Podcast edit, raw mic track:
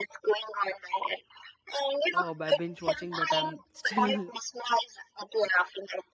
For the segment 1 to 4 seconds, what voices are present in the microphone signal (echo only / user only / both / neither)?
both